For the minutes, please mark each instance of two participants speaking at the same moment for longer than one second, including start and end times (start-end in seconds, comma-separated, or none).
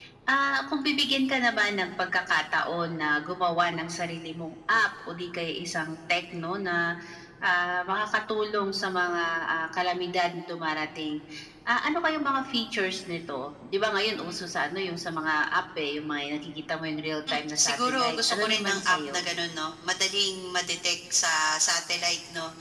17.3-19.2